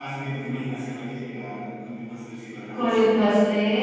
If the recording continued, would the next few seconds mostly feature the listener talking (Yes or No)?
Yes